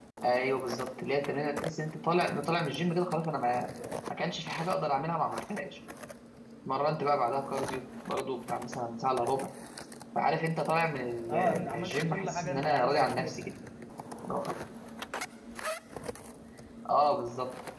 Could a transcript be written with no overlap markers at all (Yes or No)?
No